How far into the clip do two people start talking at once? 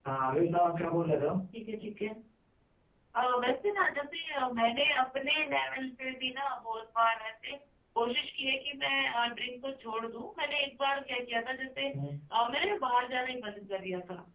none

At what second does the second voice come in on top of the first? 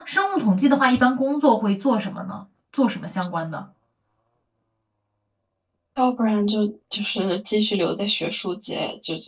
none

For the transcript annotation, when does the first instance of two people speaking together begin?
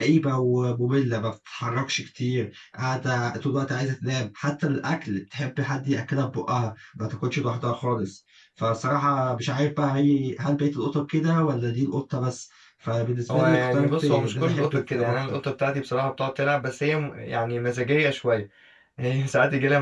13.3 s

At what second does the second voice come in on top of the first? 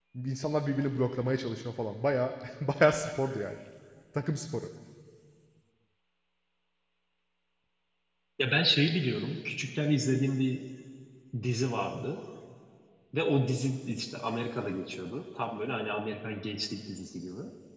none

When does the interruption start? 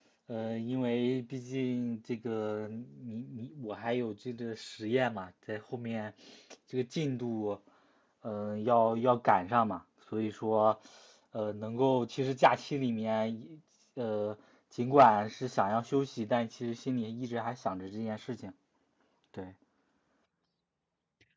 none

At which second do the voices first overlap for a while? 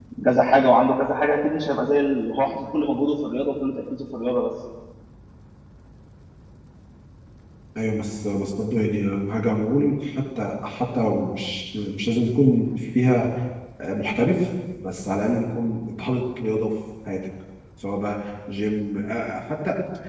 none

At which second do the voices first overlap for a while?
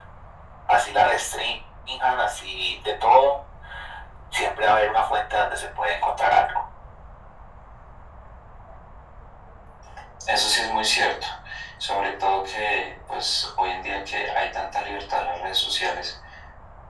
none

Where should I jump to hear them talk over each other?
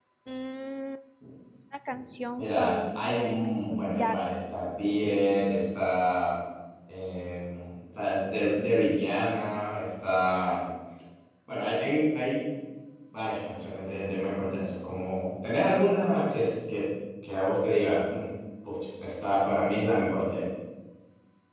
2.4 s

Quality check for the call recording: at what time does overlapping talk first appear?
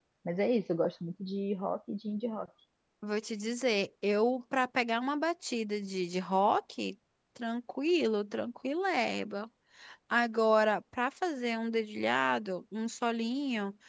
none

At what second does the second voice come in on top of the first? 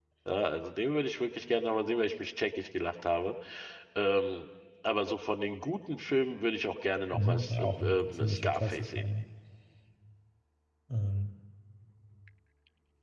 7.1 s

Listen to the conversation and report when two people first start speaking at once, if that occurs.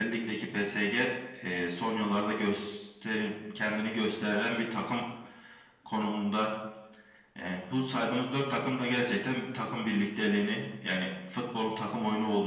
none

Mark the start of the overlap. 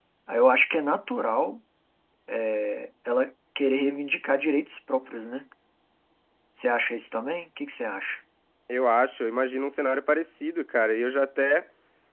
none

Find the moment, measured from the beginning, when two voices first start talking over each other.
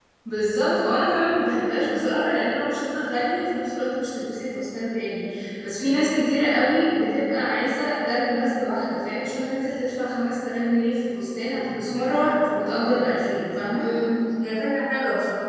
none

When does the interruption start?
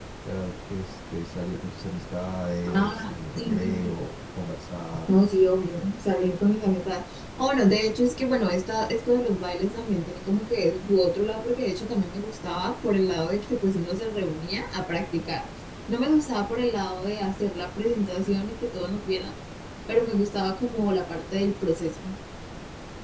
2.7 s

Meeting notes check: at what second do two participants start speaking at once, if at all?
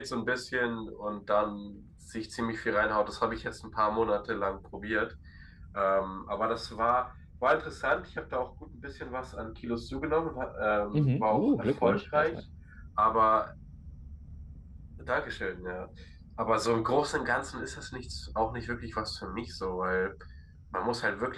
10.9 s

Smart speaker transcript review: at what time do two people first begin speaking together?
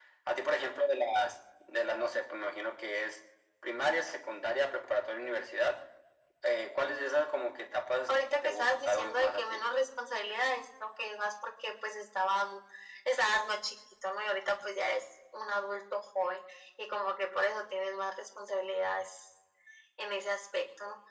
8.1 s

